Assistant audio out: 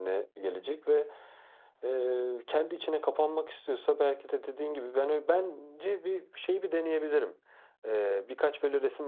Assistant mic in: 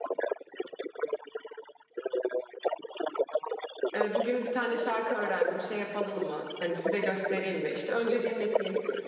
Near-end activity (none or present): present